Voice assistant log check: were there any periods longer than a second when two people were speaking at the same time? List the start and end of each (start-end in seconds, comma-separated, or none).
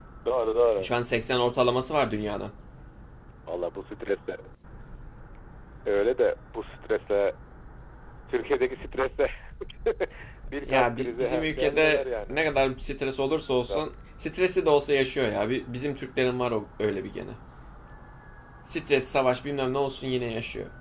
10.7-12.4